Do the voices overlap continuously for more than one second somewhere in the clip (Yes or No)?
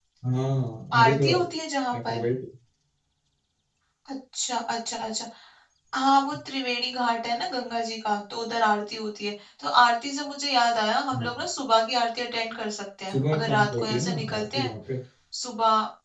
Yes